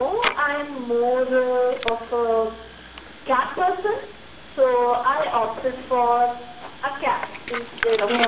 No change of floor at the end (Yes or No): No